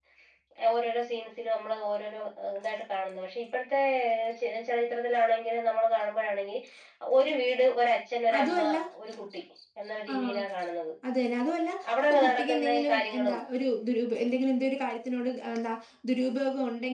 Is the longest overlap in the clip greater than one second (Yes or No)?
Yes